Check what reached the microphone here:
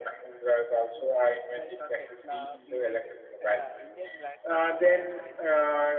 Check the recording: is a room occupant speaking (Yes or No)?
Yes